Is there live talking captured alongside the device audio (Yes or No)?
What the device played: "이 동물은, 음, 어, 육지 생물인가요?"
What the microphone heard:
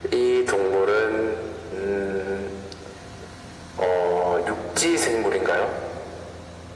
No